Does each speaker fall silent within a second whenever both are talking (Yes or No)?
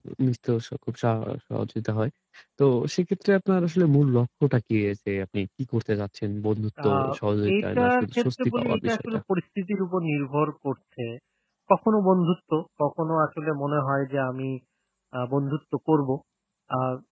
No